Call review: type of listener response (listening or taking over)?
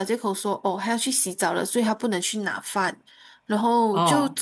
listening